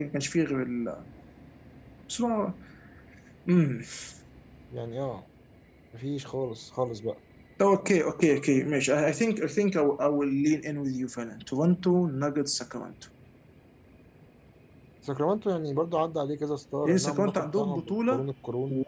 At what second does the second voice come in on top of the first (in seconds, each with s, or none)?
16.9 s